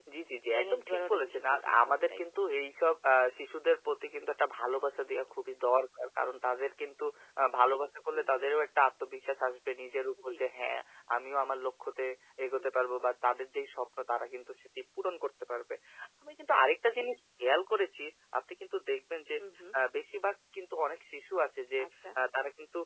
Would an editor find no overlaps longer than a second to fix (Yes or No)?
No